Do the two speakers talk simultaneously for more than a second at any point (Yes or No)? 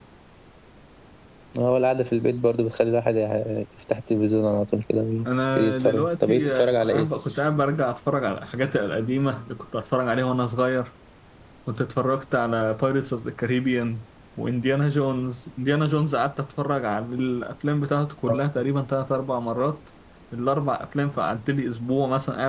Yes